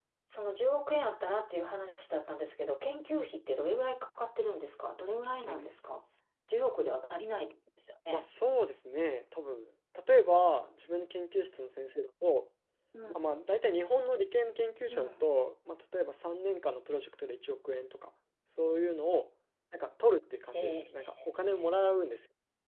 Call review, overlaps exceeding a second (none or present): none